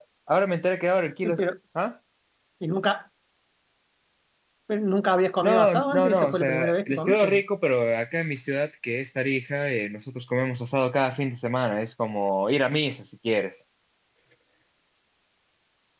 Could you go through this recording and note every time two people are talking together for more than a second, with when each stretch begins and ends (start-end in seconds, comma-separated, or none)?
5.4-7.4